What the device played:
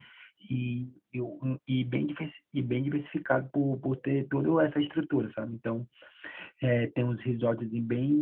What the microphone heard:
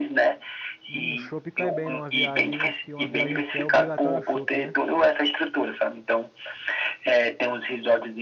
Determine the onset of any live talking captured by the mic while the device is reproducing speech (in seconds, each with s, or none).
0.9 s